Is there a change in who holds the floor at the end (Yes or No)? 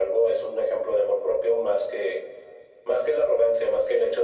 No